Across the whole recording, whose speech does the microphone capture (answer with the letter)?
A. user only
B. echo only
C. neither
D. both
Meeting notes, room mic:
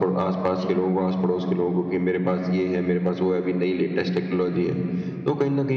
D